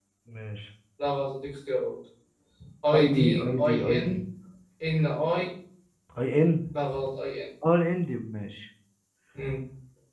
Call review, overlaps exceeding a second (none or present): present